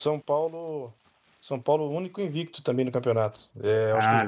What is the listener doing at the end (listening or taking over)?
listening